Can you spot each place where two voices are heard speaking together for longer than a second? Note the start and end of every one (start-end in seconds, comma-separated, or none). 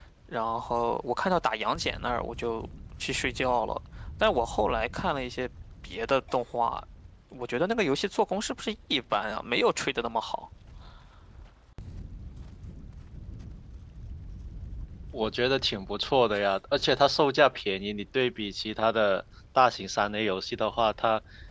none